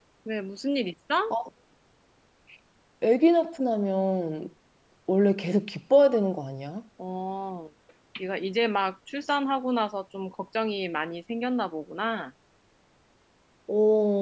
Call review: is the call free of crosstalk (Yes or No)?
Yes